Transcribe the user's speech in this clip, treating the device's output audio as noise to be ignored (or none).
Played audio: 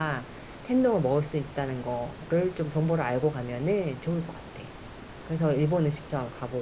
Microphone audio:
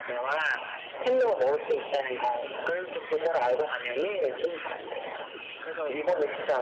none